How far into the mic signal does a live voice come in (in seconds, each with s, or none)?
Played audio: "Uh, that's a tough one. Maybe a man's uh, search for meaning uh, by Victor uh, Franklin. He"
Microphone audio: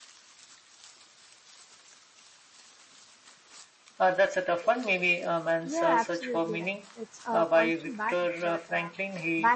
5.6 s